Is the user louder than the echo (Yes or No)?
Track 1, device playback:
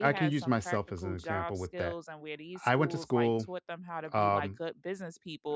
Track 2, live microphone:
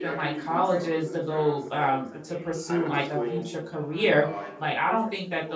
Yes